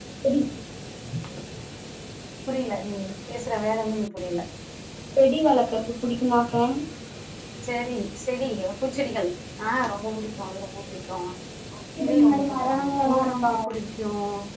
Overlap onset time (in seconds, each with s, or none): 12.0 s